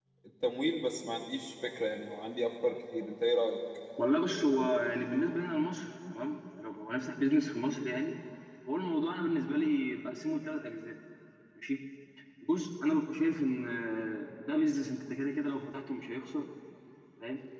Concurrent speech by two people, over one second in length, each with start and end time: none

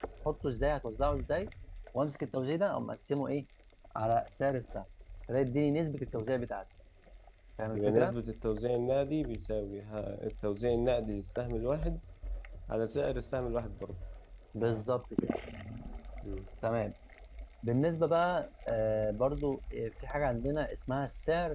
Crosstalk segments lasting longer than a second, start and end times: none

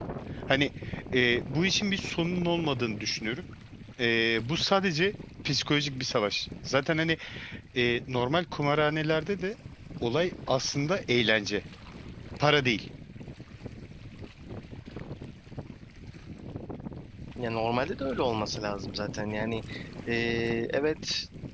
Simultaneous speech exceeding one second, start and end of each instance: none

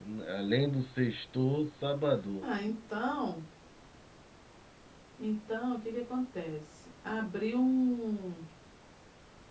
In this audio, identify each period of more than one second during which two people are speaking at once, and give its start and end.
none

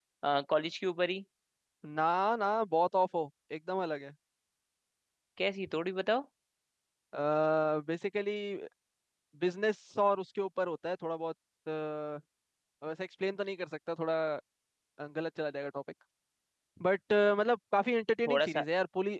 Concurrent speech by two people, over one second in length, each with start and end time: none

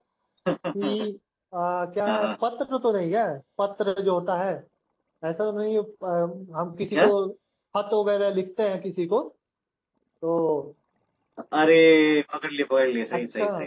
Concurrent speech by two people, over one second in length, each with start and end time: none

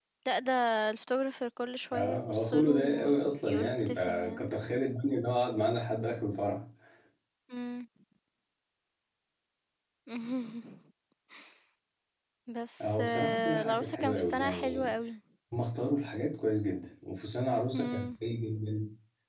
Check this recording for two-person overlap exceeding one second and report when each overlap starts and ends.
1.9-4.5, 12.8-14.9

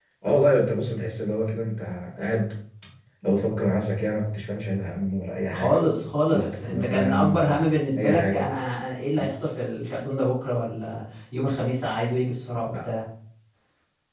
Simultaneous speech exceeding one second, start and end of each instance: 5.5-8.5

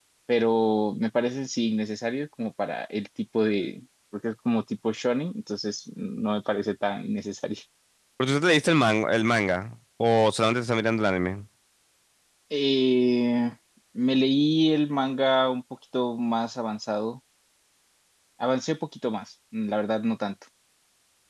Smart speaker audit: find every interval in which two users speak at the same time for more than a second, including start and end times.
none

